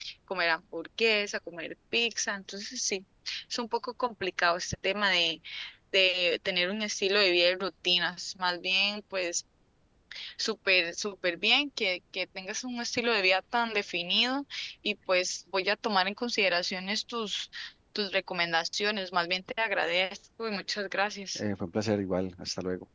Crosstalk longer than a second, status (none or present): none